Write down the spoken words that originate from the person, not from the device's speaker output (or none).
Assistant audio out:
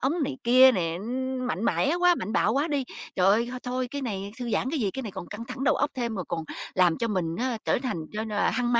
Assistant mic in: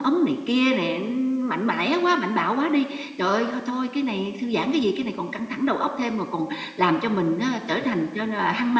none